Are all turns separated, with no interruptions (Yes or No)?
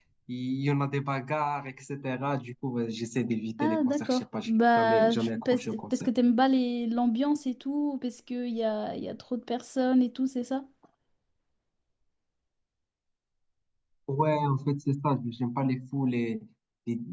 No